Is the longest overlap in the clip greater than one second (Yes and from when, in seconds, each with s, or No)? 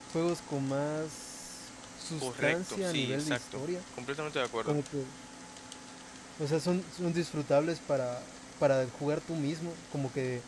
Yes, from 2.2 s